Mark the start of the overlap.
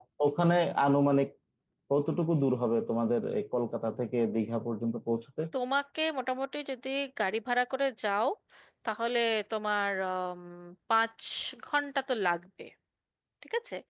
none

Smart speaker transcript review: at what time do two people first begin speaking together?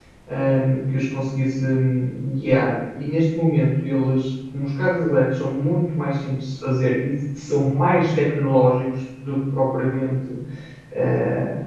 none

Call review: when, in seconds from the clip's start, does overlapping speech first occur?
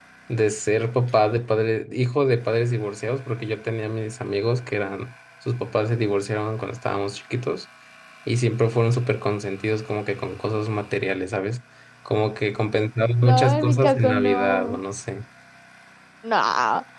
13.2 s

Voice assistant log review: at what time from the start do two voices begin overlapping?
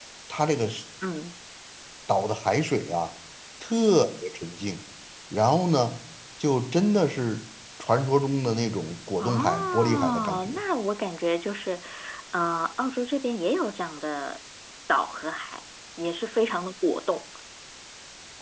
9.2 s

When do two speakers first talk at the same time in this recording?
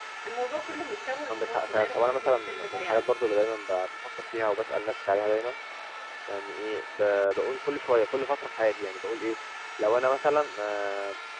1.3 s

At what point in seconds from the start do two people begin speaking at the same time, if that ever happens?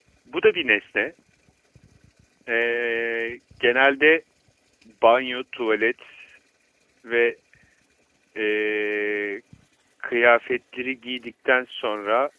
none

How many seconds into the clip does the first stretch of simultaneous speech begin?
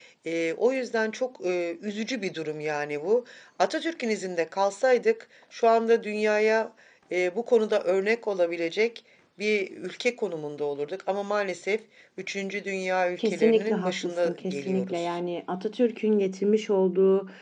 13.2 s

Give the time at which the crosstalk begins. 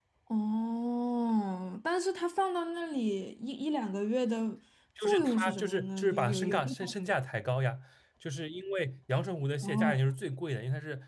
5.0 s

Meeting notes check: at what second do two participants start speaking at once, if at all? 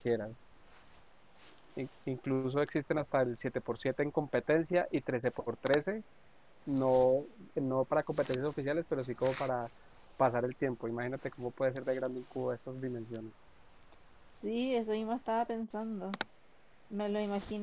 none

